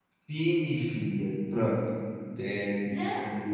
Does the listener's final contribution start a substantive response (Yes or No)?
No